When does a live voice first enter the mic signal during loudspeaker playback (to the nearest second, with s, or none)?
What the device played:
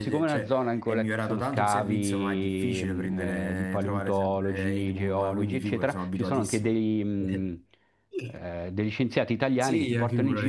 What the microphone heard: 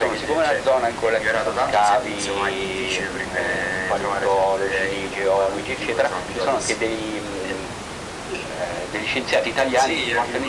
none